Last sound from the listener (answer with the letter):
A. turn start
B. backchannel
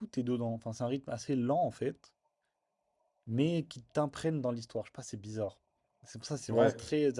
B